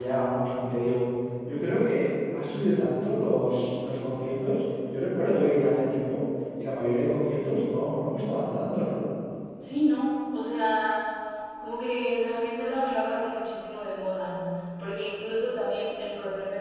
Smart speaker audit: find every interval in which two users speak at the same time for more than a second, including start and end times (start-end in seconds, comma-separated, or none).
none